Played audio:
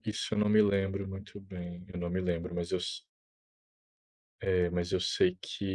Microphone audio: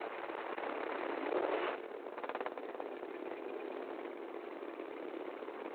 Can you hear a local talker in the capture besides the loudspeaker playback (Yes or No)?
No